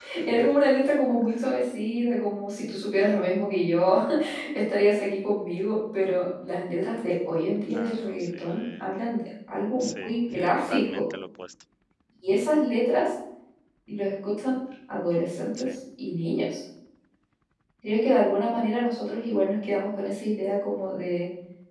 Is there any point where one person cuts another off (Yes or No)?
Yes